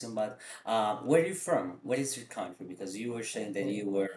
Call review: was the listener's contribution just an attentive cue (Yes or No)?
Yes